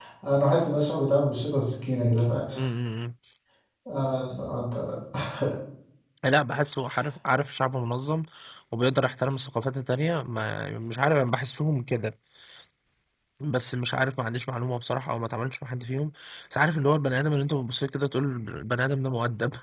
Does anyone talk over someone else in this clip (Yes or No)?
No